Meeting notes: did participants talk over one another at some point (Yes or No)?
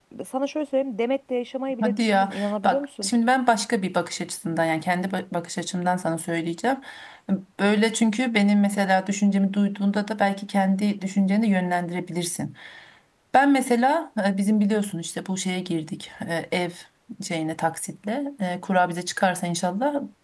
Yes